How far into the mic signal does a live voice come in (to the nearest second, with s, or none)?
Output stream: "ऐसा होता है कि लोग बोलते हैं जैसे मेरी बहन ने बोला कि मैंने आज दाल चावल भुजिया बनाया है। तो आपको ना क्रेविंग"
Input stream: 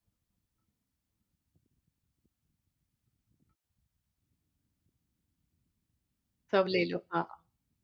7 s